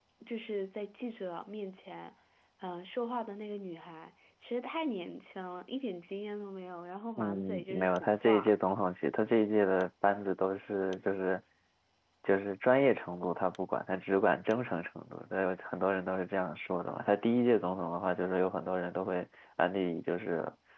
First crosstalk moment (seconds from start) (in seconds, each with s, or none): 7.2 s